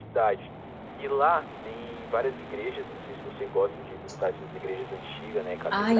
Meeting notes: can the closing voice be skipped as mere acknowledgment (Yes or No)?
No